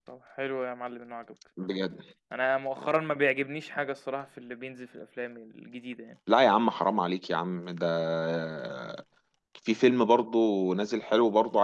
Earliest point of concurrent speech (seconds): none

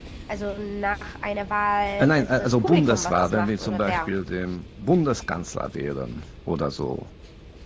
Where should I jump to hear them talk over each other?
2.0 s

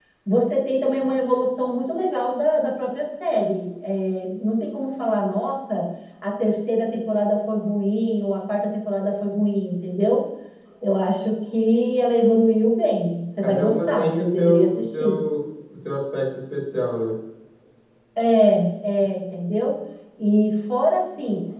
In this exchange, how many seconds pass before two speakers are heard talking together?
13.4 s

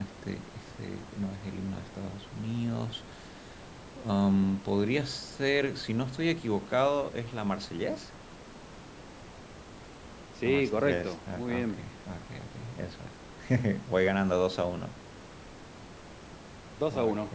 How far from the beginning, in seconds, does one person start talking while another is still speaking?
10.4 s

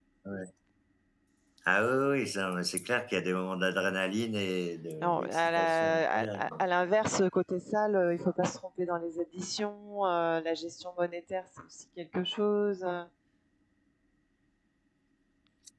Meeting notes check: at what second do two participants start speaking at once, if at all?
5.0 s

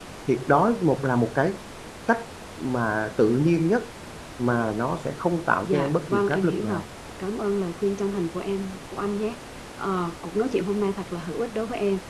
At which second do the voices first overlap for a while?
5.6 s

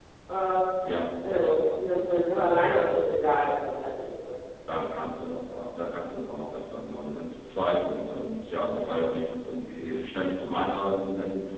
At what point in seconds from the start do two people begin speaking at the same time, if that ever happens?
none

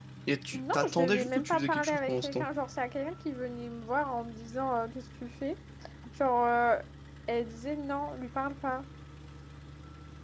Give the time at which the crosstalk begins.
0.5 s

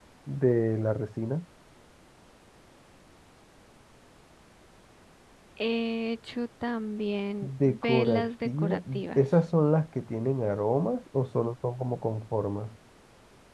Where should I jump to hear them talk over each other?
7.4 s

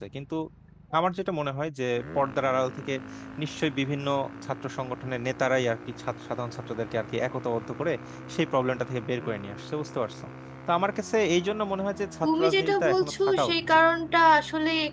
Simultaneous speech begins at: 12.2 s

